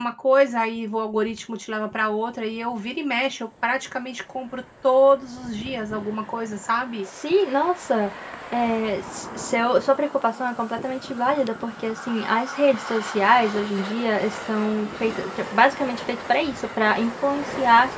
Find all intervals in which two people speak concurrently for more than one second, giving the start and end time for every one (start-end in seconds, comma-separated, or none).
none